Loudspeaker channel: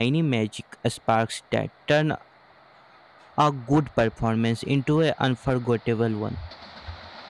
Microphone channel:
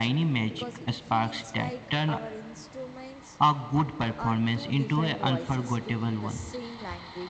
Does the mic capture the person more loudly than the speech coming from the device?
No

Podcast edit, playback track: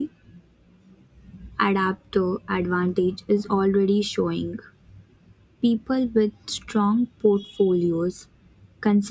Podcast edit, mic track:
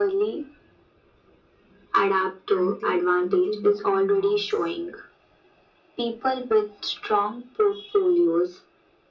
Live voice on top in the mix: No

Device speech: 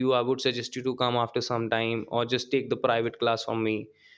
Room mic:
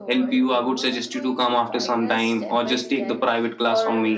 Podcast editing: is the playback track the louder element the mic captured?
Yes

